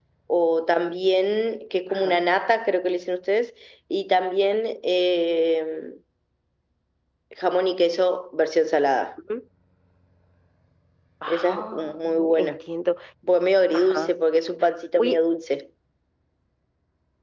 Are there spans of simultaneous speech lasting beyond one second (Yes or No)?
Yes